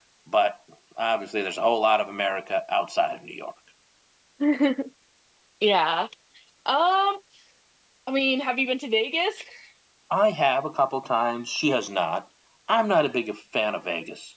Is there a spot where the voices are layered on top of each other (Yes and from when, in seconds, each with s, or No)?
No